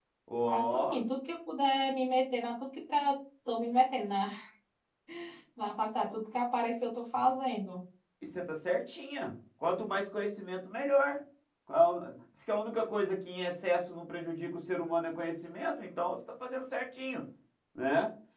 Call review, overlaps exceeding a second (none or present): none